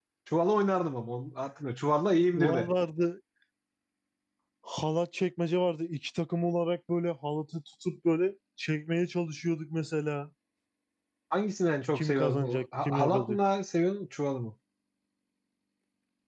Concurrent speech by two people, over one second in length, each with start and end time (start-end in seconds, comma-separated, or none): 11.9-13.4